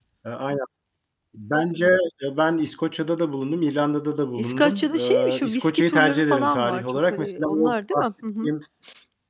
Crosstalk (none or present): present